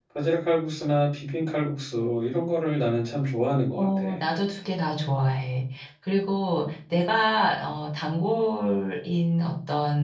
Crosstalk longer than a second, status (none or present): none